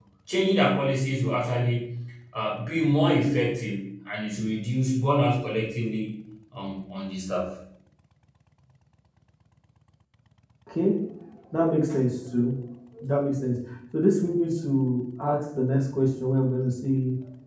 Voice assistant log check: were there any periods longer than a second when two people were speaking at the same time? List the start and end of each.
none

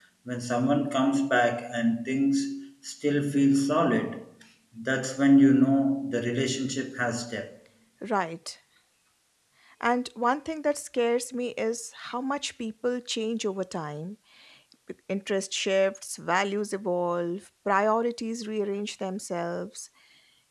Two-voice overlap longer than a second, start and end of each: none

